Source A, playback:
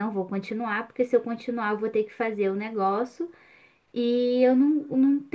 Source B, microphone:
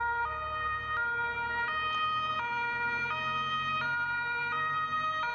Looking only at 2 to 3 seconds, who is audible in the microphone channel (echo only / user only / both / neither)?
neither